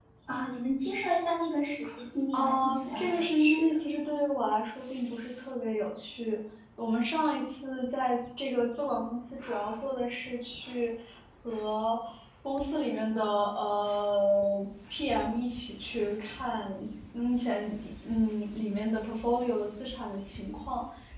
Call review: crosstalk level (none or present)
present